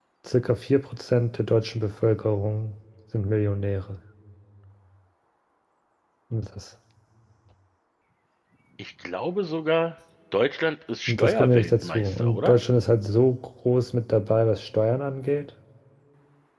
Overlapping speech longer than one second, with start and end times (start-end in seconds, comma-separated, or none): 11.1-12.6